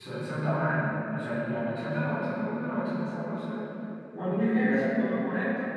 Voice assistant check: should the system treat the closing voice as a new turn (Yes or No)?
No